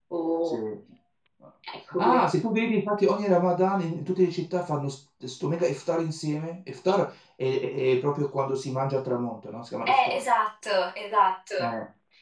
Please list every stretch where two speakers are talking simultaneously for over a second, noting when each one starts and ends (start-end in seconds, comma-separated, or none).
none